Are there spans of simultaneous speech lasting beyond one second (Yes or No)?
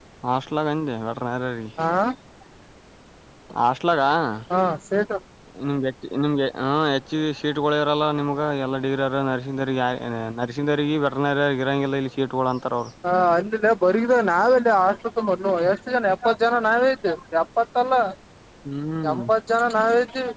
No